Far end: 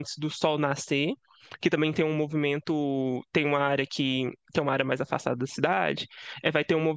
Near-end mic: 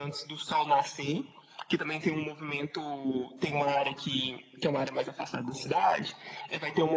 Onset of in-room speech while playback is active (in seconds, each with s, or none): none